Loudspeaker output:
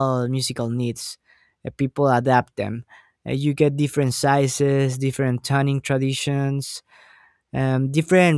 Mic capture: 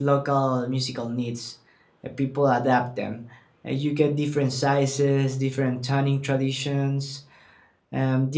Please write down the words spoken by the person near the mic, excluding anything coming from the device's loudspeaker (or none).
none